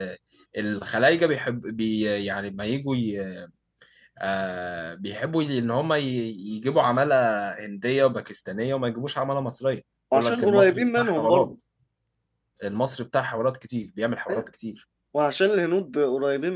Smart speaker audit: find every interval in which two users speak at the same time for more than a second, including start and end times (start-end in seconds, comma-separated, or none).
10.1-11.5